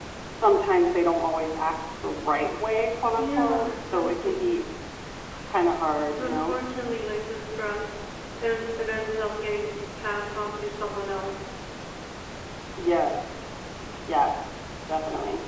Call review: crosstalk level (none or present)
present